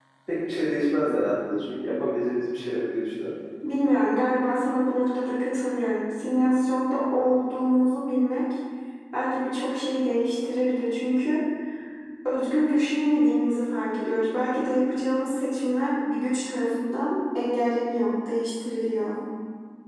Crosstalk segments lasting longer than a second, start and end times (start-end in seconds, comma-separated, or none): none